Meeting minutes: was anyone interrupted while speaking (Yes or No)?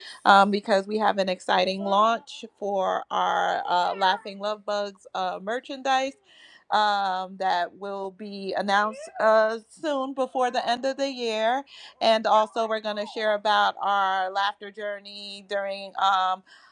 No